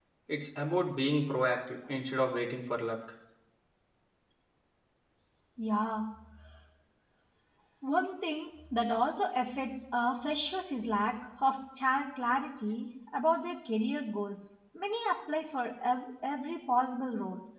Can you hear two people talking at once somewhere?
No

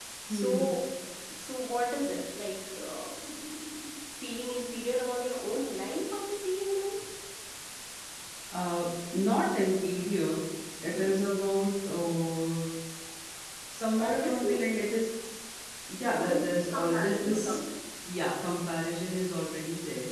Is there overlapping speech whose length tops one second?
Yes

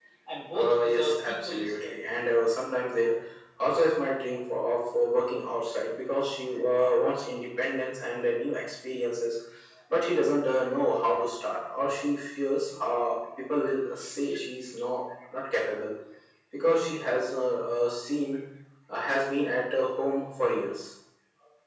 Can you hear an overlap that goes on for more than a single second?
Yes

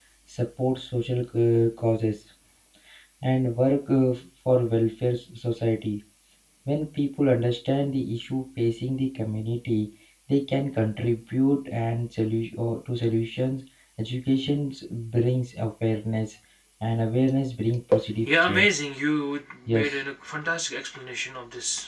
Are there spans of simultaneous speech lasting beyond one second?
No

